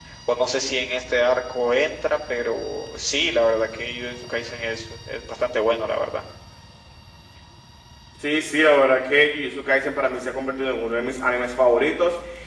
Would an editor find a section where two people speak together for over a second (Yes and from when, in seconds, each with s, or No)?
No